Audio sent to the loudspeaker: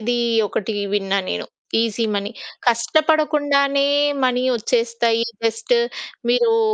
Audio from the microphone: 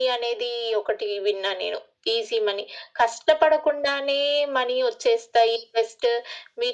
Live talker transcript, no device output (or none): none